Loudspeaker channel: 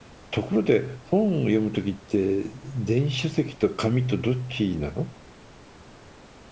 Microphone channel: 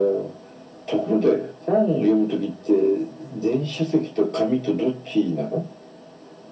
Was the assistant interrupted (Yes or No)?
No